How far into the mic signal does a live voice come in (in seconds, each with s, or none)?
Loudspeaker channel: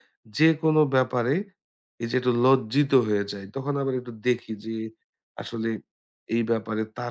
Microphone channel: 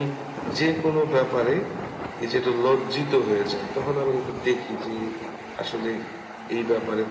none